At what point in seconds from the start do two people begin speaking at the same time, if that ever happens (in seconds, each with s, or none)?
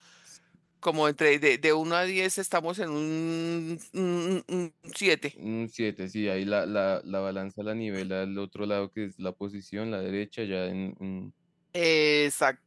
none